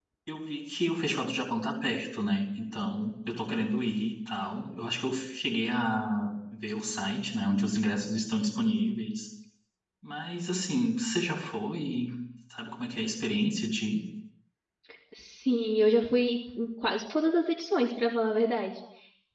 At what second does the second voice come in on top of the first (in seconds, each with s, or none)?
none